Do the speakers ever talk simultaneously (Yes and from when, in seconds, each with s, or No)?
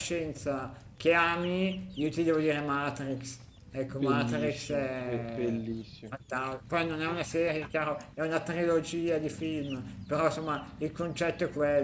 Yes, from 3.9 s